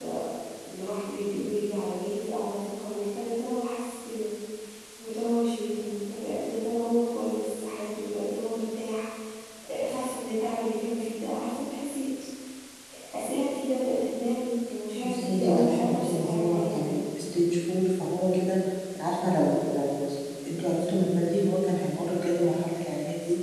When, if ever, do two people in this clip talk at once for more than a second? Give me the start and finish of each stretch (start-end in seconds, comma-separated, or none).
15.0-16.9